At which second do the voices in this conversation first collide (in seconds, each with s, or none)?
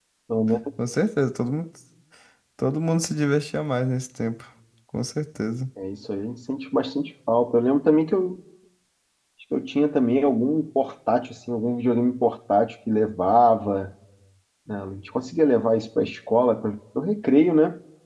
none